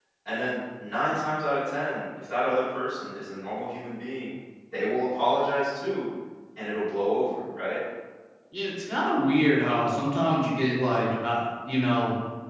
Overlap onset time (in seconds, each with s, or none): none